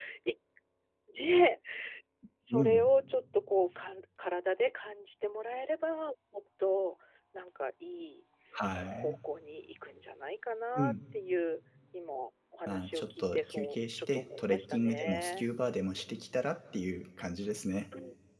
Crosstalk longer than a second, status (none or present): present